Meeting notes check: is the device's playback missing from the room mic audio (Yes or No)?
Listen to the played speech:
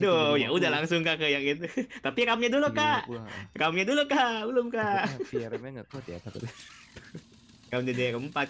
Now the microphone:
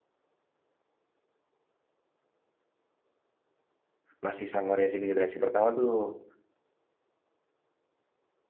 Yes